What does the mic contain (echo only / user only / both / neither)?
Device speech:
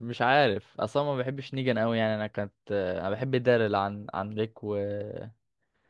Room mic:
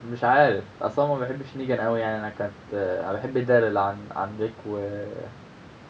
echo only